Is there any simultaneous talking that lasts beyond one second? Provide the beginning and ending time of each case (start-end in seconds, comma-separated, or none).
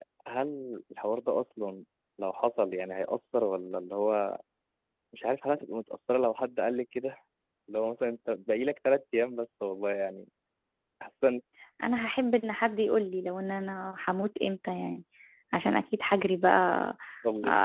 none